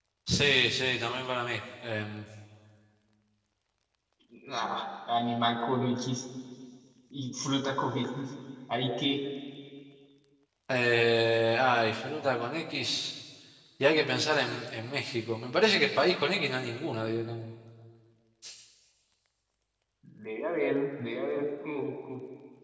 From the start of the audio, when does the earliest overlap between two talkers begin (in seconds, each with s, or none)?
none